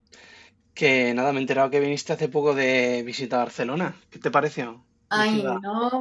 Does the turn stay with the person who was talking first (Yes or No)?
No